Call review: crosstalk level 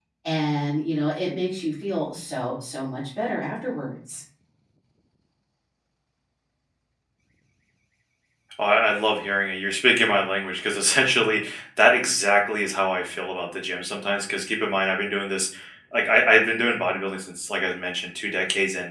none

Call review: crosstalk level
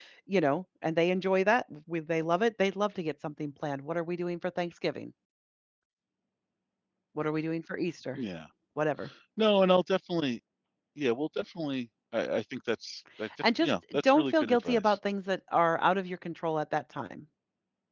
present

